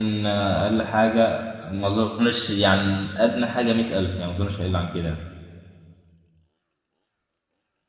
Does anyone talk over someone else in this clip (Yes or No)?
No